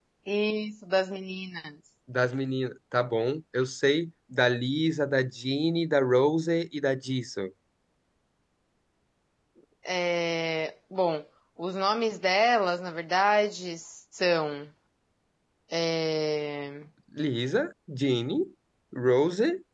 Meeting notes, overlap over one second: none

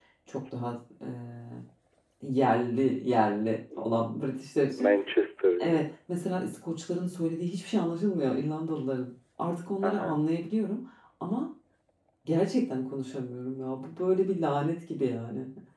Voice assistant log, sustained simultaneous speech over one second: none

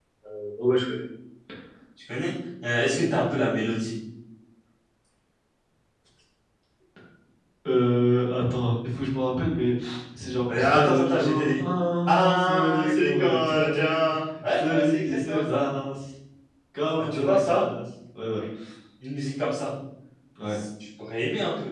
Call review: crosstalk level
present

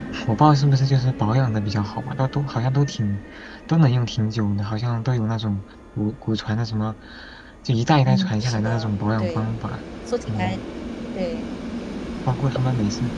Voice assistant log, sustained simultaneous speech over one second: present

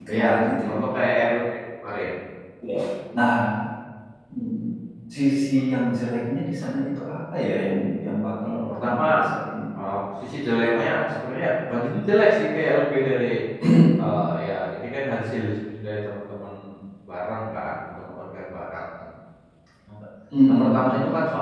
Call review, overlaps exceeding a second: present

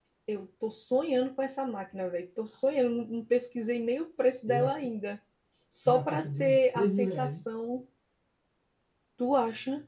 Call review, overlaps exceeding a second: present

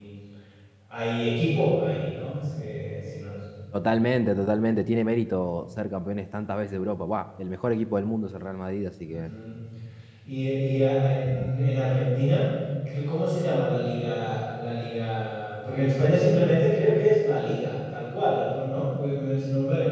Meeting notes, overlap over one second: none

